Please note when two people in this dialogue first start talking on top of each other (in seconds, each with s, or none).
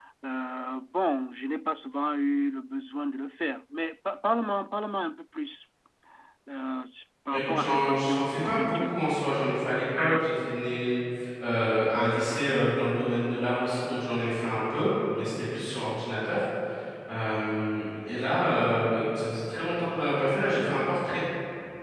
7.3 s